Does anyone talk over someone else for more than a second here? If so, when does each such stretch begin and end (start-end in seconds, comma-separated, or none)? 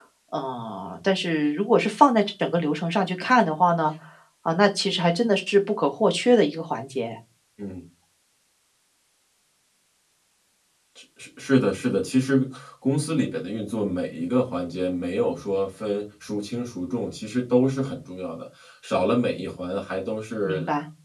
none